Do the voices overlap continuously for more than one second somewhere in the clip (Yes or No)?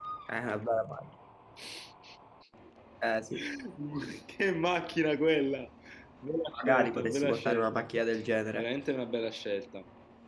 Yes